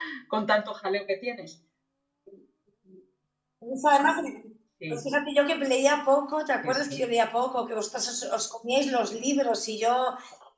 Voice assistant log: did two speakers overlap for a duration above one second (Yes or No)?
No